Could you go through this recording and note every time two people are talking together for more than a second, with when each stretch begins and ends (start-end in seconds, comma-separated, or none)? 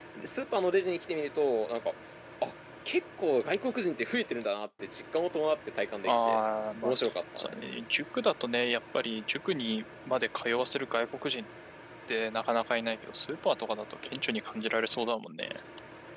none